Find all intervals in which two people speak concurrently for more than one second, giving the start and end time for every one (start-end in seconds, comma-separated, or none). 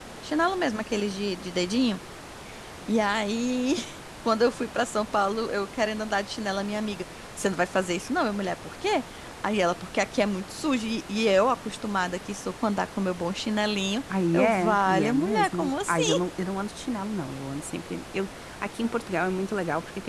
14.3-16.2